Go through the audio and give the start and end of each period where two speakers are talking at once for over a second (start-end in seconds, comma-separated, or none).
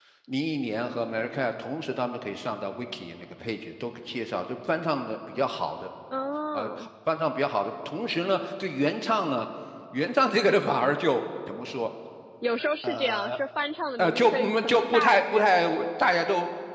14.0-15.5